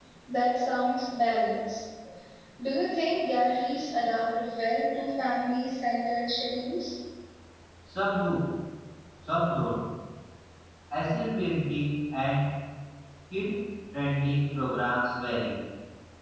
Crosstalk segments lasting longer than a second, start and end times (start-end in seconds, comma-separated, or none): none